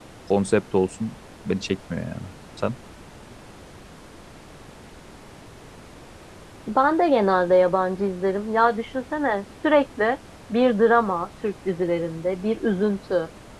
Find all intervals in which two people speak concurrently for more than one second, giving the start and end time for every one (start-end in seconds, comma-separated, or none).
none